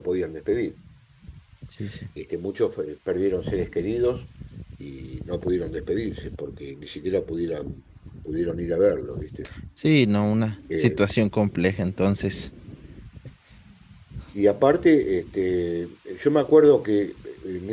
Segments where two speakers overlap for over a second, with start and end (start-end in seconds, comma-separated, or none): none